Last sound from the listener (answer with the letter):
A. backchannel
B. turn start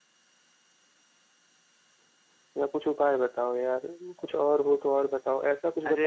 B